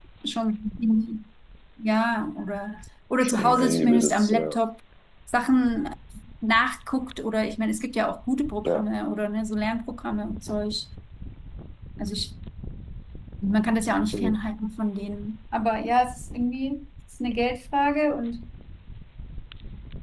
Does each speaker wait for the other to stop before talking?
No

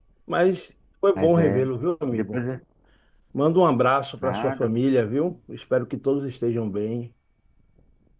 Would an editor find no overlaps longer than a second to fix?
Yes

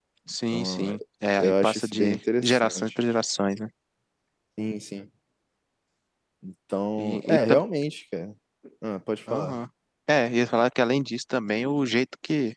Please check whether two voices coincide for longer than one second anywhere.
Yes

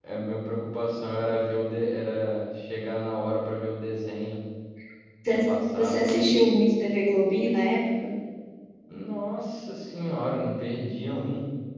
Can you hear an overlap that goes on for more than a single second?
No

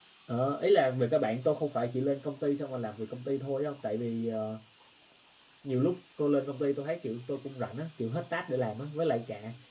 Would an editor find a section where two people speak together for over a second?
No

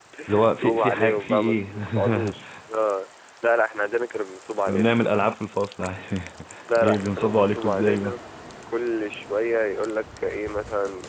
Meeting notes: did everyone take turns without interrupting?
No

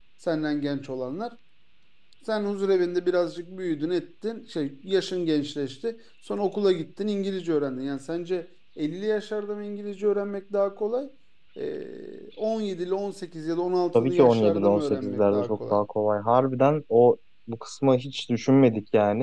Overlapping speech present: Yes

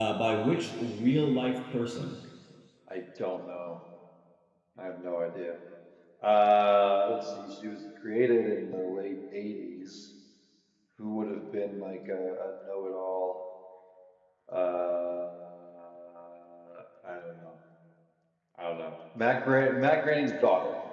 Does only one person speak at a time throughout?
Yes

